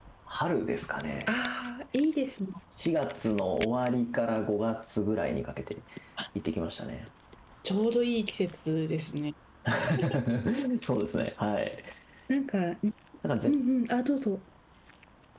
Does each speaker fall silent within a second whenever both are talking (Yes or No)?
Yes